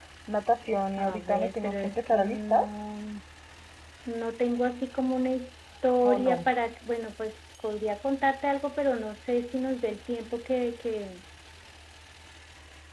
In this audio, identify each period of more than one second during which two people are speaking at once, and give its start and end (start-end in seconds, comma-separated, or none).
1.0-2.6